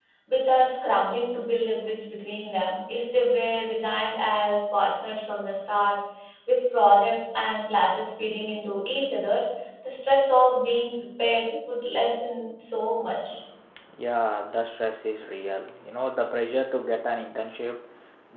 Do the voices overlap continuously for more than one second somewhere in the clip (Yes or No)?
No